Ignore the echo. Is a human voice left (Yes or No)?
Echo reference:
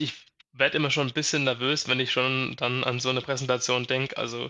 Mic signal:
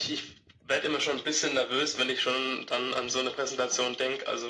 No